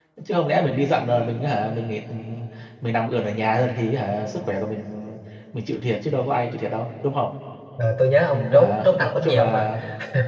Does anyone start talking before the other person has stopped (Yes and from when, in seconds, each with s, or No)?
Yes, from 8.3 s